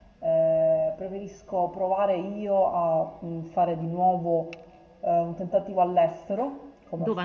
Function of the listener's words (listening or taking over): listening